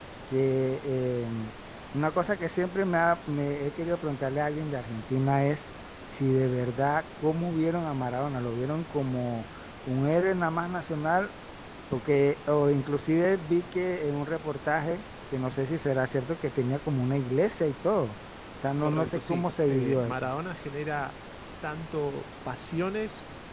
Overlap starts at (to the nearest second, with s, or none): 19 s